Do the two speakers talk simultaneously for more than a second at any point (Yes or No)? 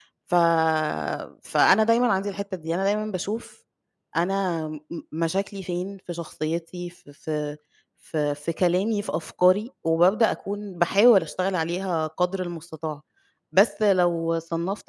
No